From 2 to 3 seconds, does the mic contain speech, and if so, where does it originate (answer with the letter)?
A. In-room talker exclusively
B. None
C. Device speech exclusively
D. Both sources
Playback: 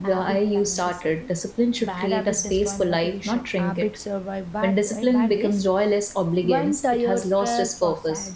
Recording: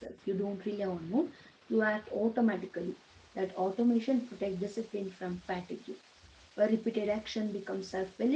A